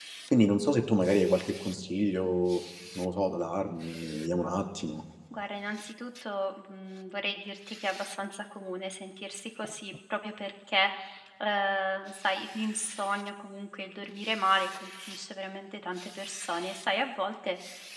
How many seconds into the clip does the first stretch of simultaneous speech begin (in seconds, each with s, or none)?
none